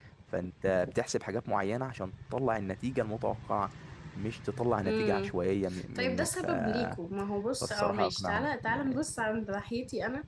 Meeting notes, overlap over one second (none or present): present